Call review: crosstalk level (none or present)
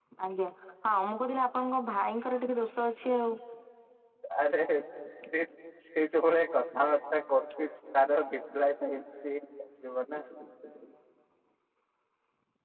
none